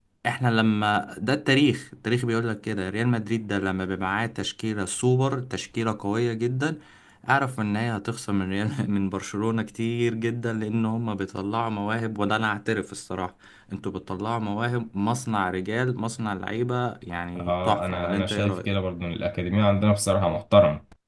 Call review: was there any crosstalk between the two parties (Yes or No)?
Yes